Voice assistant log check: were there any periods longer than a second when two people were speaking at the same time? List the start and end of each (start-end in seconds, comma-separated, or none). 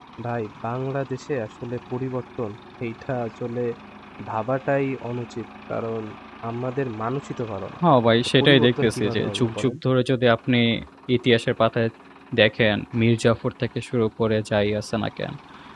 8.4-9.8